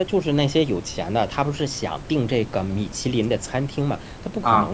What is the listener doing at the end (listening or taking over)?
listening